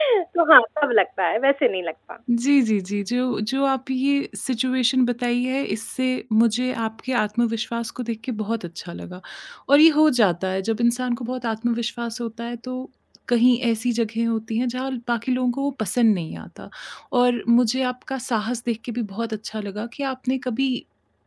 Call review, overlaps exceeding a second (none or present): none